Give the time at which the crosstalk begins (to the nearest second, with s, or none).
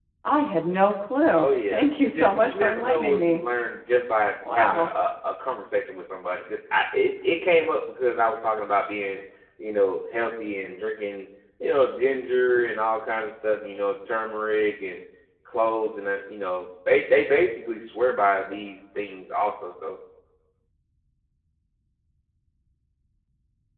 1 s